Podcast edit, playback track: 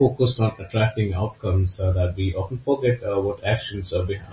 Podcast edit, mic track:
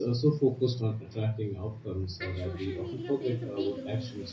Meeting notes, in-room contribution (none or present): present